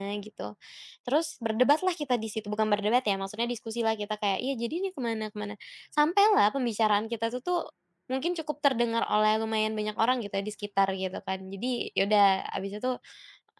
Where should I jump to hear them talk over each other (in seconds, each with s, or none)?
none